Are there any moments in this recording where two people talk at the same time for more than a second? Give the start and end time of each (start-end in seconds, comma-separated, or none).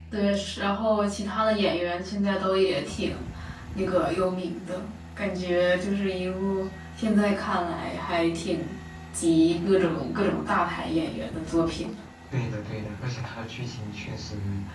none